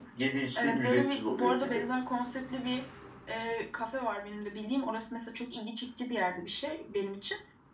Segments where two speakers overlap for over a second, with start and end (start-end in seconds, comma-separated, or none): 0.6-1.9